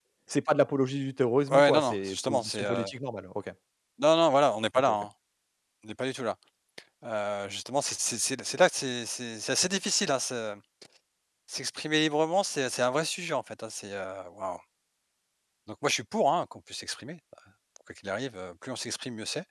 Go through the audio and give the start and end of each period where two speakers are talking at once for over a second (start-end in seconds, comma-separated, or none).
1.5-2.8